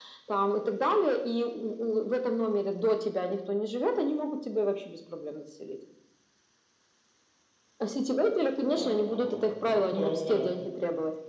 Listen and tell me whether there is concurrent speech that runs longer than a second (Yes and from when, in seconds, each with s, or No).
Yes, from 8.8 s